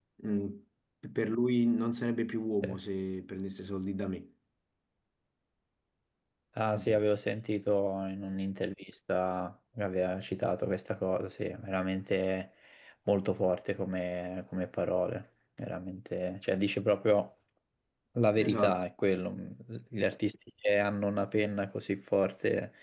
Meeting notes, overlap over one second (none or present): none